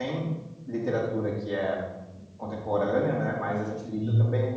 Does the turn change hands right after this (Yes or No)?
No